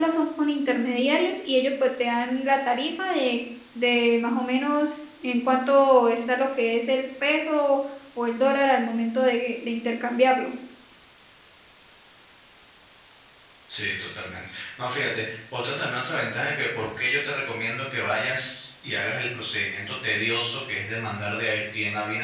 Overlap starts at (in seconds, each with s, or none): none